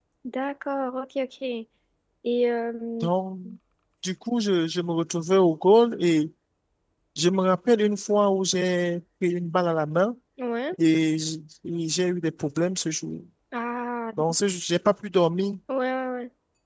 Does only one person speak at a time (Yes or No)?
Yes